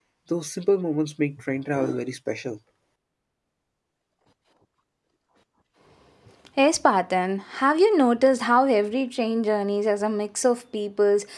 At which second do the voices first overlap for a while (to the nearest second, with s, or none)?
none